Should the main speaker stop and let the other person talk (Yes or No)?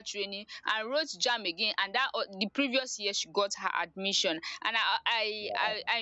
No